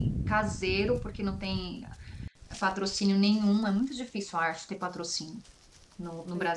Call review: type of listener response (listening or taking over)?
listening